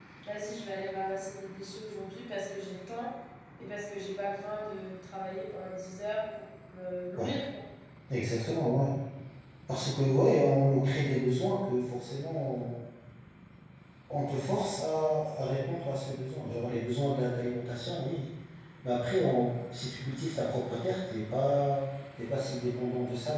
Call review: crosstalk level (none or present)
none